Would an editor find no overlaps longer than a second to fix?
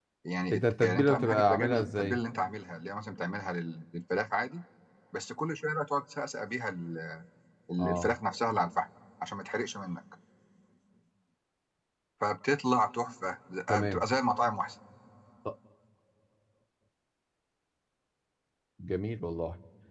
No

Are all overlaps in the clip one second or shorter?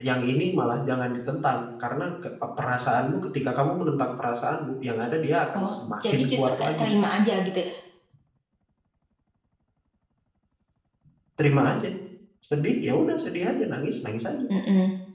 No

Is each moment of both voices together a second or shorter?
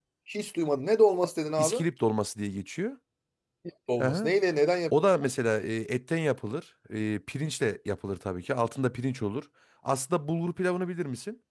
Yes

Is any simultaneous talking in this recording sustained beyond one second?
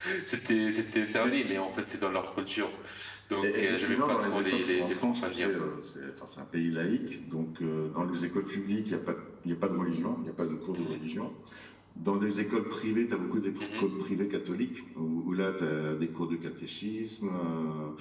Yes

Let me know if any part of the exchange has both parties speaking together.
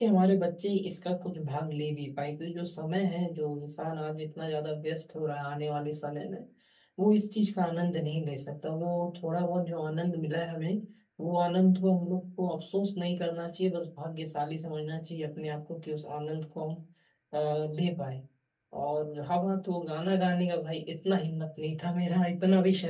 No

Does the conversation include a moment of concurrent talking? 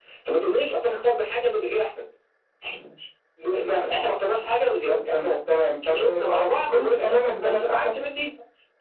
Yes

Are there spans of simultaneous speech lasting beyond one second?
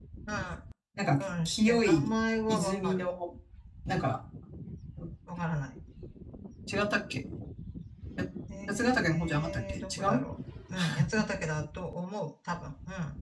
Yes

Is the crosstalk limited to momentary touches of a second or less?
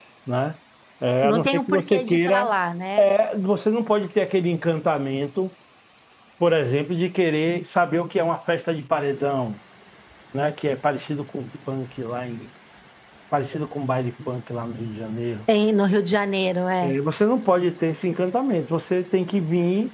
No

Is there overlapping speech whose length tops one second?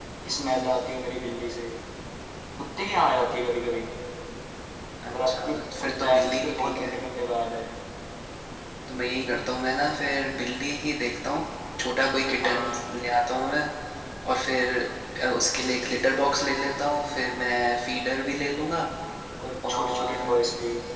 Yes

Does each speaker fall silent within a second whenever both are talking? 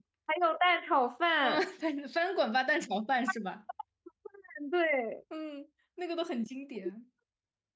Yes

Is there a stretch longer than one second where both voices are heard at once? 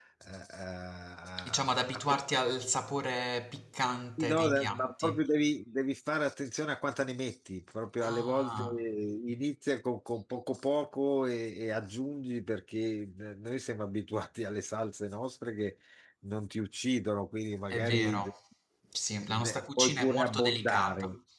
Yes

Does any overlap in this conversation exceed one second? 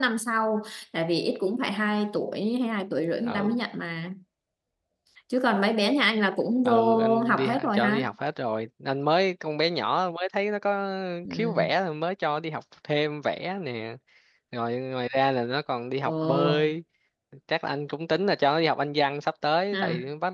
Yes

